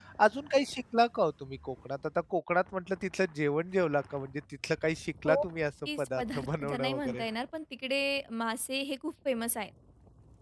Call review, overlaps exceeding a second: present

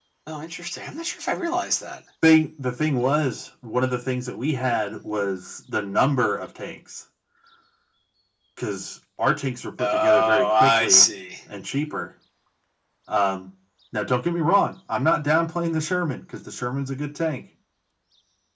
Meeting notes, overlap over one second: present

